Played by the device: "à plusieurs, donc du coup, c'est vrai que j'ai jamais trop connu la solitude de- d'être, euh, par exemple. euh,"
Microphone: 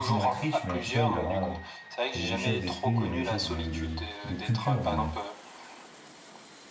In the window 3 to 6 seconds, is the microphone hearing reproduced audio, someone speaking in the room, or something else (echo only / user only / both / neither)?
both